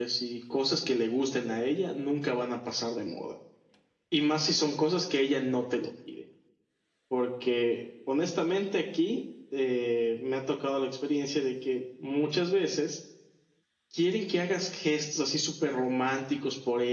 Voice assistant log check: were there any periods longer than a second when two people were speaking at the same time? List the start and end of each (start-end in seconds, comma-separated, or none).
none